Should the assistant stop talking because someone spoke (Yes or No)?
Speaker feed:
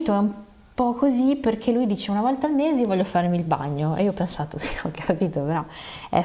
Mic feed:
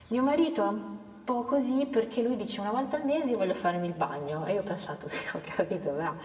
No